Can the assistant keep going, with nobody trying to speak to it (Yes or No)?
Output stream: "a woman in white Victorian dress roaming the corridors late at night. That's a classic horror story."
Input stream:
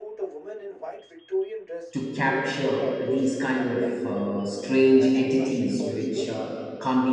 No